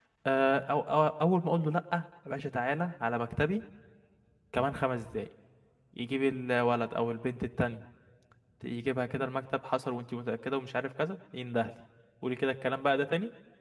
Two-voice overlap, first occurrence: none

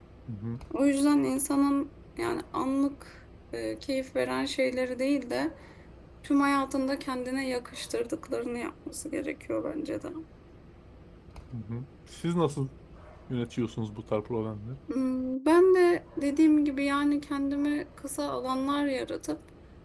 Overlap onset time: none

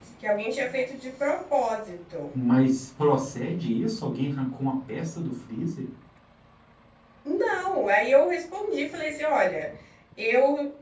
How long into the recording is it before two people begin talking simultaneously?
none

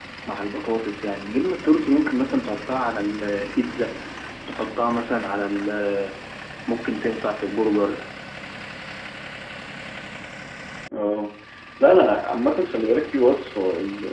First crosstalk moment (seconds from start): none

